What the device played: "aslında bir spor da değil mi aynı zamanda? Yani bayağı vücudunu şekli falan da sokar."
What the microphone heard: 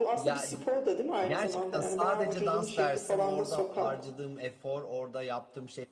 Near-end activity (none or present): present